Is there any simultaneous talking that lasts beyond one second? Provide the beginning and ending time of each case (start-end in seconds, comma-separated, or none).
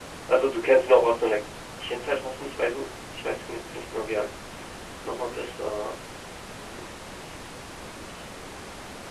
none